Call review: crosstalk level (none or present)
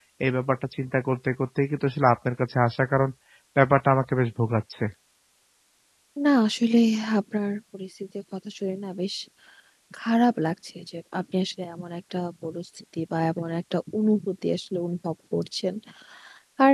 none